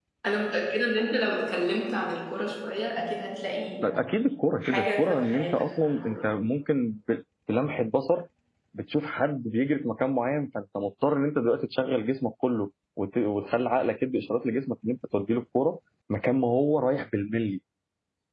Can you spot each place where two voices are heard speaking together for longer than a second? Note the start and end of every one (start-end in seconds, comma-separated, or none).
4.6-6.2